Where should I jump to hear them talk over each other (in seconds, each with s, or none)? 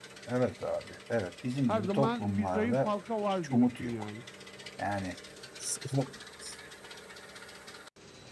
1.7 s